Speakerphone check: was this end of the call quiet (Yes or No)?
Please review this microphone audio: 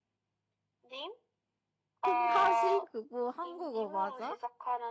No